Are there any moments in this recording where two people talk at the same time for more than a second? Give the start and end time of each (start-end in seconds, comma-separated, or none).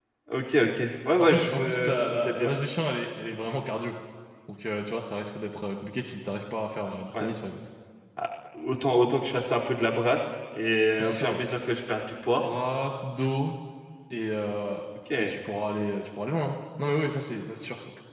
1.2-2.5